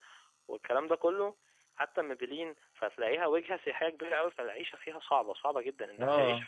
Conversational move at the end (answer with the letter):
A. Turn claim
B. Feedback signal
B